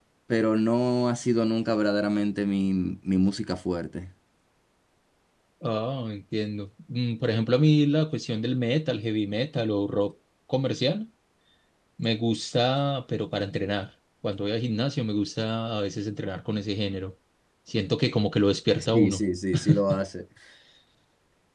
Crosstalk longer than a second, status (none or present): none